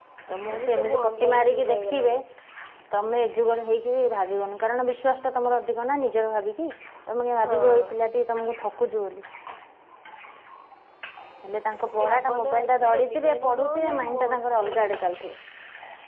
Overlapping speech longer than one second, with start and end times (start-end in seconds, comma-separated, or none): 0.6-2.1, 12.0-14.2